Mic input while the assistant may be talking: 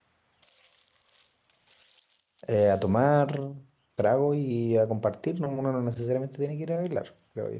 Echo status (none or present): none